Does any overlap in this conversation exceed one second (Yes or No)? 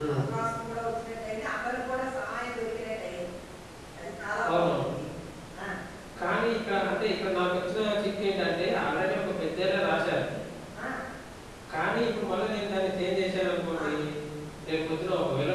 No